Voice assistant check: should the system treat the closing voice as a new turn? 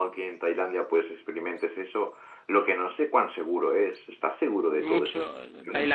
Yes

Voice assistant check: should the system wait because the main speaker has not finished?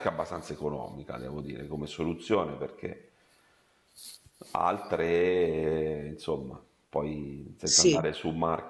Yes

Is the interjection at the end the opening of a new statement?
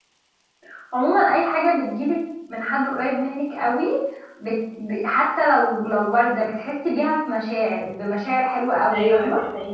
Yes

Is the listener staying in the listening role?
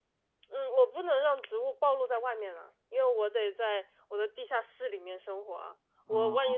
Yes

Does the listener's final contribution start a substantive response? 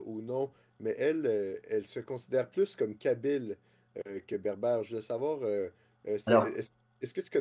No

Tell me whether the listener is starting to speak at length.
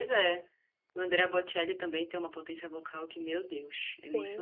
Yes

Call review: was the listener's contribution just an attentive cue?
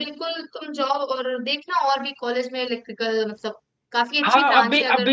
No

